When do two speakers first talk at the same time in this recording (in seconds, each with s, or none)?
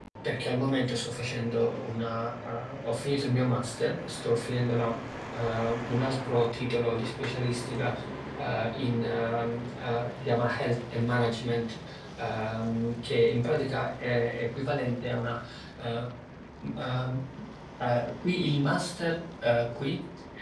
none